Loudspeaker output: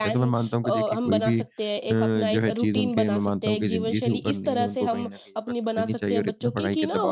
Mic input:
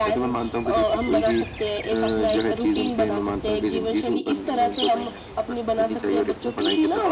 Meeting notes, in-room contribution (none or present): none